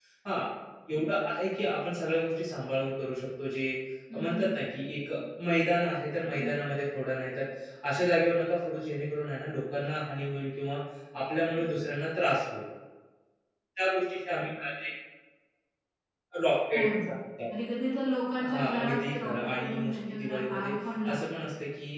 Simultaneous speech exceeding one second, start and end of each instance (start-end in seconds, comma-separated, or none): 18.5-20.7